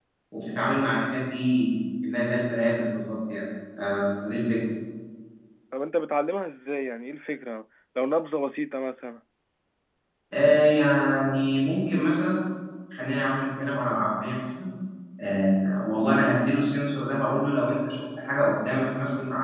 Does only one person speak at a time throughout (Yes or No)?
Yes